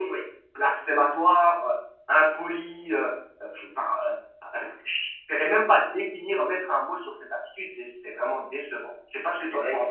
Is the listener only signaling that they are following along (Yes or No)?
No